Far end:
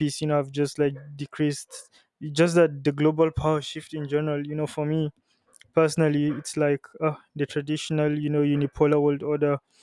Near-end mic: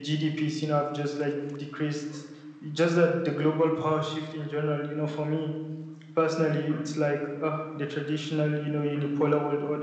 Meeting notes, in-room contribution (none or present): none